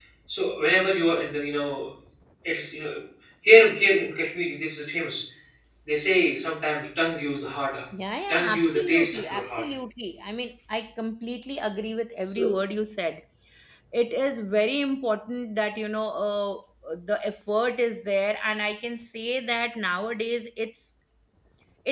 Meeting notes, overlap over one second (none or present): present